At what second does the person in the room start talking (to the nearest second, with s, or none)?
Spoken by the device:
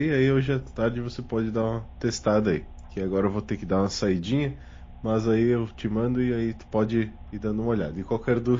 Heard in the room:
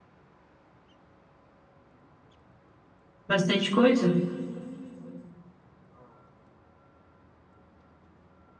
3 s